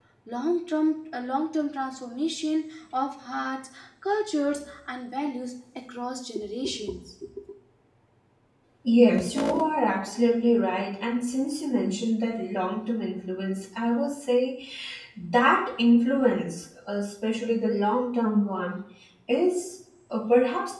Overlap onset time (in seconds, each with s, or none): none